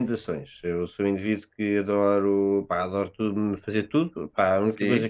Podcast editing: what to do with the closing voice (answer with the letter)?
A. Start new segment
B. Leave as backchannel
B